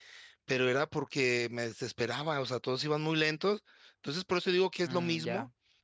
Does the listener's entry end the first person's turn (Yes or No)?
No